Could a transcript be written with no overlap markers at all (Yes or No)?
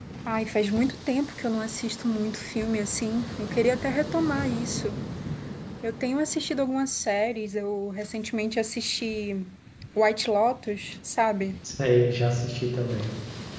Yes